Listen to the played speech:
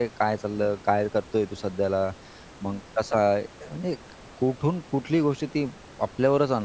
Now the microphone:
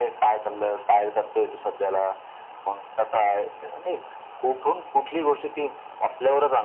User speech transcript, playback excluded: none

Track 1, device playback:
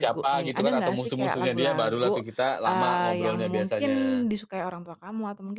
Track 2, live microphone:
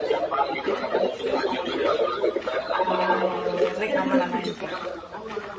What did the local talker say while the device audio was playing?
Oh, yang penting aman-aman aja.

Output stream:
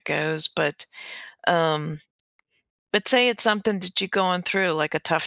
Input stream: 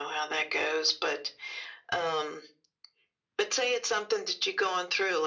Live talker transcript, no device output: none

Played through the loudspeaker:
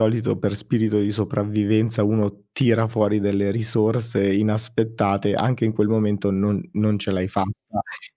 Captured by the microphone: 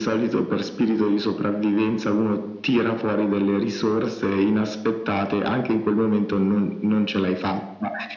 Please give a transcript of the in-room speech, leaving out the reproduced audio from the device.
none

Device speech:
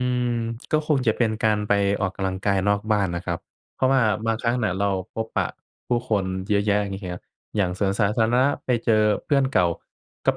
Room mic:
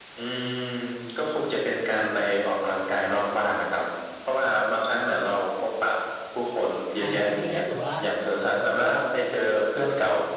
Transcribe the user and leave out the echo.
ใช่ จริง ๆ ก็ถือว่า

